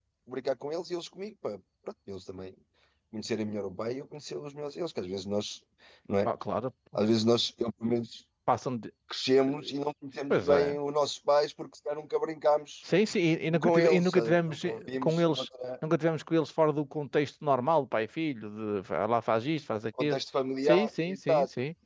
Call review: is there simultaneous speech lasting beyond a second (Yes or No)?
Yes